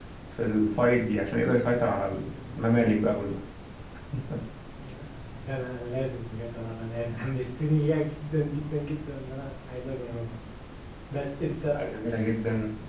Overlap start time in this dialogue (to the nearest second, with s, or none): none